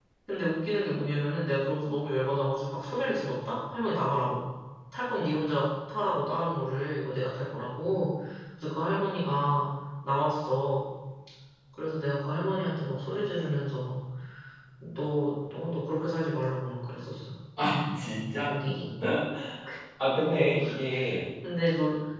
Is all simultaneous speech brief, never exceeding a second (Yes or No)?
Yes